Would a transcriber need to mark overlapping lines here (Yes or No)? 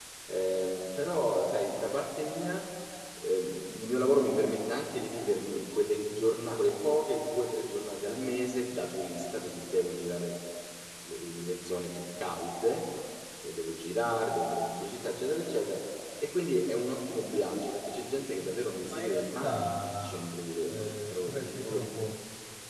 Yes